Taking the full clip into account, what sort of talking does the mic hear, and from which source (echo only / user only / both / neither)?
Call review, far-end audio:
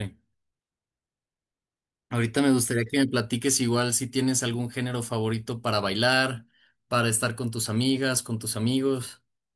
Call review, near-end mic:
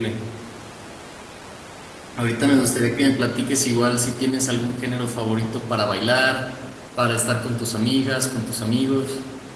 echo only